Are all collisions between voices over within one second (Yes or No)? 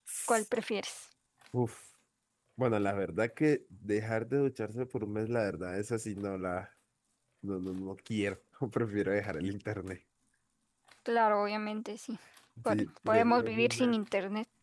No